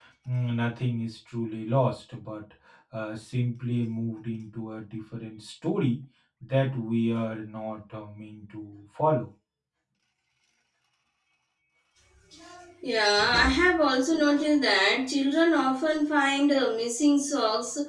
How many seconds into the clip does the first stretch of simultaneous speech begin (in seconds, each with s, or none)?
none